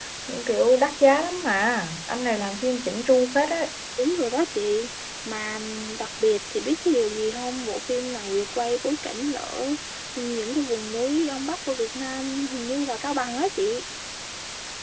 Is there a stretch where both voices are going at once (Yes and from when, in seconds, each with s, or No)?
No